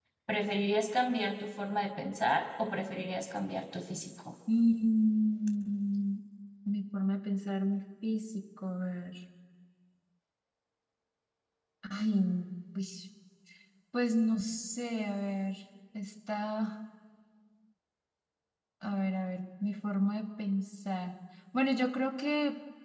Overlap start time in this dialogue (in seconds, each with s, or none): none